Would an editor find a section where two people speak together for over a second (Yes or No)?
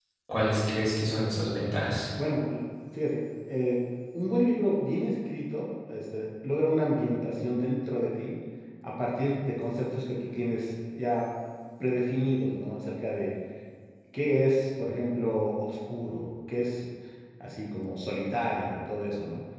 No